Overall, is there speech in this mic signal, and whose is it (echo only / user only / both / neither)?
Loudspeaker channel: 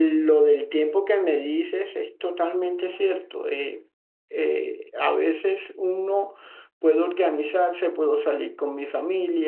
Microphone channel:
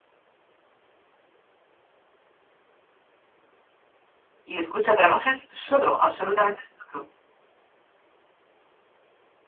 user only